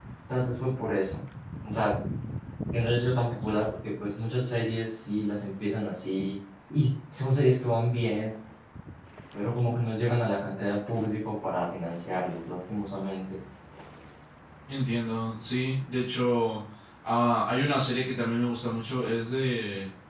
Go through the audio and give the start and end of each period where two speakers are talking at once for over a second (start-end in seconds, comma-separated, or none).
none